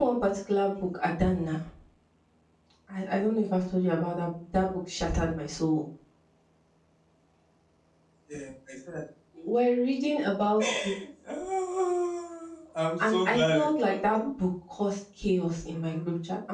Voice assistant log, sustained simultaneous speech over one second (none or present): present